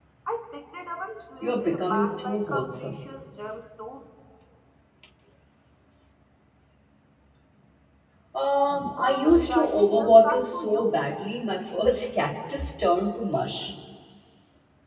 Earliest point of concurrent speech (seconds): 1.4 s

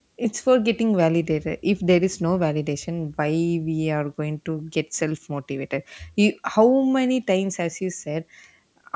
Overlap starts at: none

